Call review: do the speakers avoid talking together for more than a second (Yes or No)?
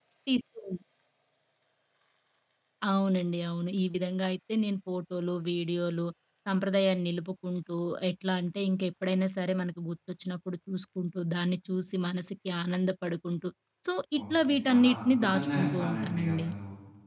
No